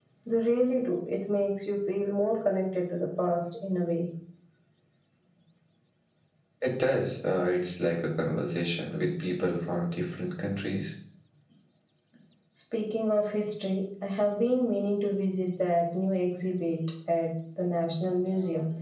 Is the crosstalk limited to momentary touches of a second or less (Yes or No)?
Yes